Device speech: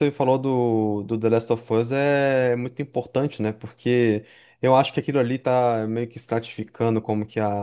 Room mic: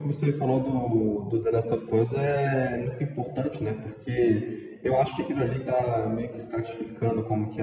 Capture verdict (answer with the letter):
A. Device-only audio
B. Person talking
A